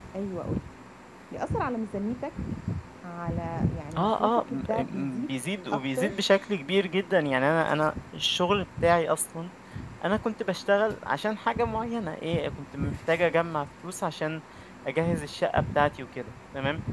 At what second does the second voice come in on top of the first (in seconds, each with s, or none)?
4.0 s